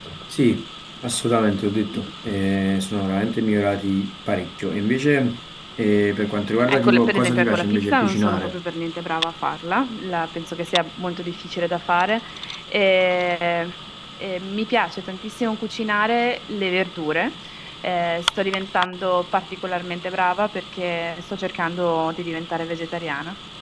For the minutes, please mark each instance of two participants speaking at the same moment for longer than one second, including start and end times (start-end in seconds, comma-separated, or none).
6.7-8.6